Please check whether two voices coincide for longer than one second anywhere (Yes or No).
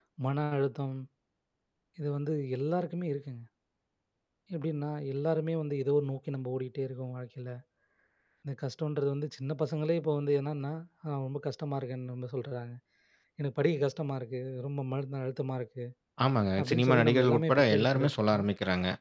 Yes